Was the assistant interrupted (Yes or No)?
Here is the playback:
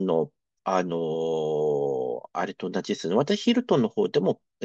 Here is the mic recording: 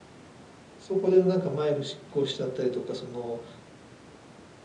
Yes